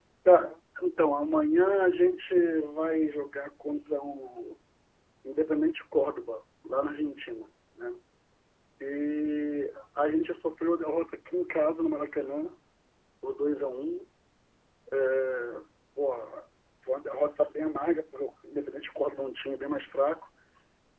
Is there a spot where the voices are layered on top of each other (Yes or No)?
No